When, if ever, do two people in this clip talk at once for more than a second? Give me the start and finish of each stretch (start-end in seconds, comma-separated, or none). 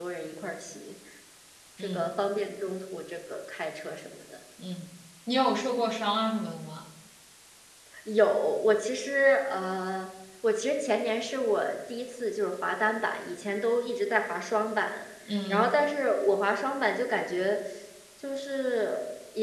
none